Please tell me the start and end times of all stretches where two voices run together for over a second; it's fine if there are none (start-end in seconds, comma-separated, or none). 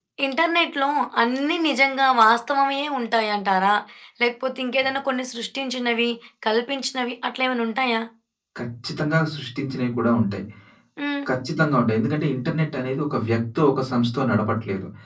none